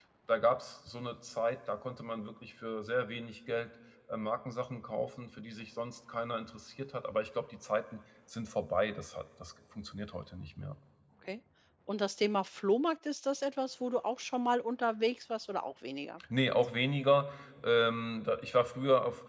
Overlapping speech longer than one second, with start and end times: none

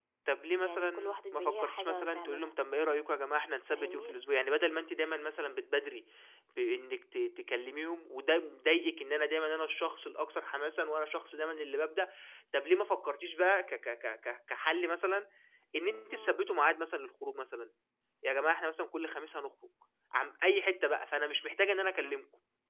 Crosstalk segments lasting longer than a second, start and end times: 0.6-2.5

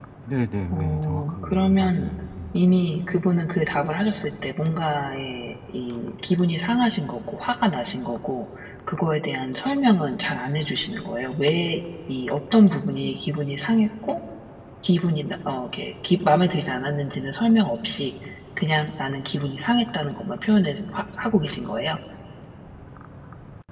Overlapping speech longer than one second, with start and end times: 0.7-2.1

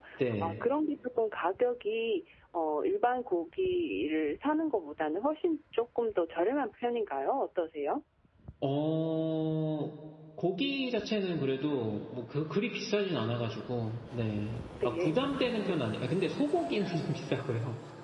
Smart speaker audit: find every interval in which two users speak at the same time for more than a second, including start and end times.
none

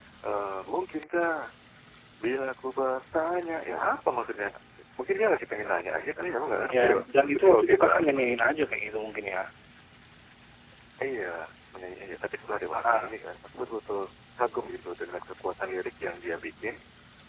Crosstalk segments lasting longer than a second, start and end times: 6.7-8.3

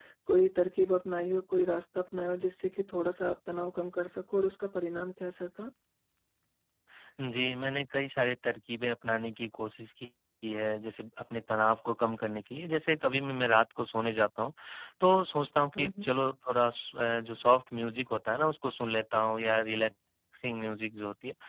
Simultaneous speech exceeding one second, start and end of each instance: none

